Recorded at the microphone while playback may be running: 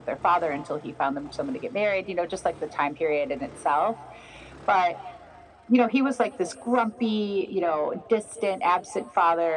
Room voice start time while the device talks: none

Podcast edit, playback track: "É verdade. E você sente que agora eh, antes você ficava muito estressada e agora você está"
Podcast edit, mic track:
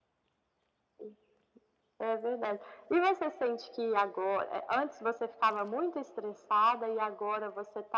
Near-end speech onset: none

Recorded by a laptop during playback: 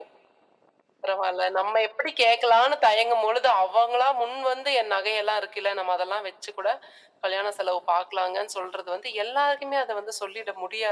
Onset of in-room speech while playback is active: none

